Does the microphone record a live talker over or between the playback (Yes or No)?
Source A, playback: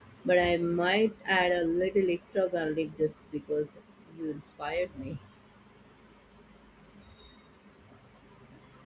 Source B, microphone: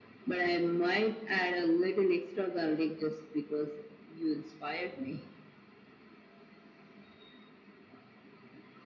No